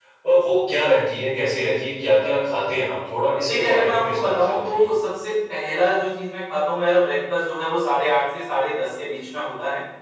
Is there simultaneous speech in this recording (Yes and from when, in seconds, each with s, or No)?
Yes, from 3.5 s